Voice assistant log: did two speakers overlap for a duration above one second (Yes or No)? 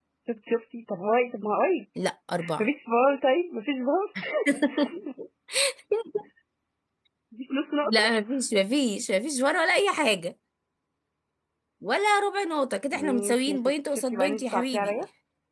Yes